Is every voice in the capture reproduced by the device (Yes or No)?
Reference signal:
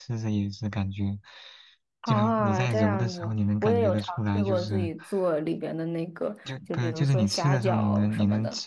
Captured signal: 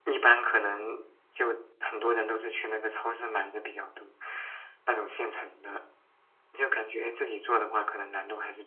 No